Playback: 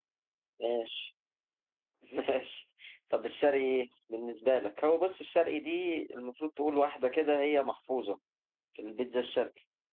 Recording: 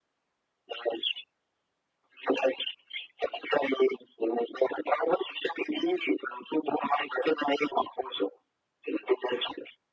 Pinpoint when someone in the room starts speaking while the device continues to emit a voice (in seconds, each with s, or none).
none